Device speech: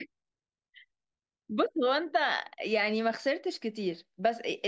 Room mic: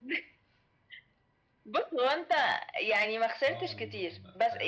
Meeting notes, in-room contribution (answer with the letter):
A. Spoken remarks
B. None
A